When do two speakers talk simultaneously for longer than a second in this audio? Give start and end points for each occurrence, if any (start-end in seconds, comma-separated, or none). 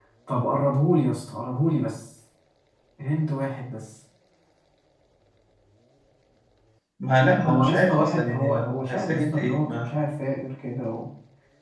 7.4-9.9